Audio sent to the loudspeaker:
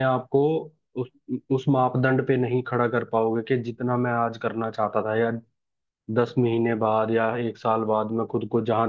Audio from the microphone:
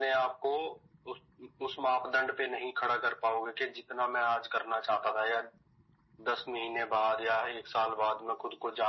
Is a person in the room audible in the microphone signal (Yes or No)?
No